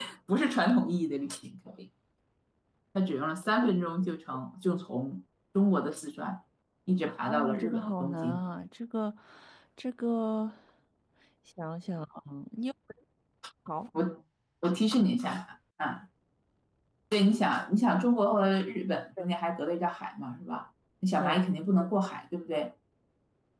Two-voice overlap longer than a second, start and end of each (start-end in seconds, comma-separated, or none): 7.3-8.5